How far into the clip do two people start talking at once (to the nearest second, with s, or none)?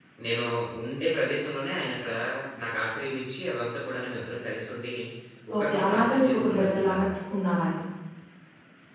6 s